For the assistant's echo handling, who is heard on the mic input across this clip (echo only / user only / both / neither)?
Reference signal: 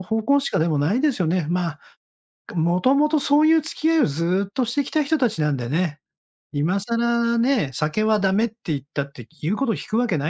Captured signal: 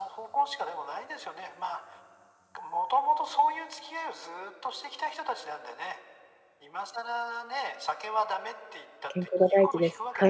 both